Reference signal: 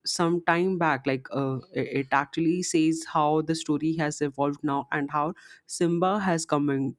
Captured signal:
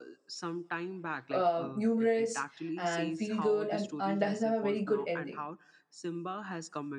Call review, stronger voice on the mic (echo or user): user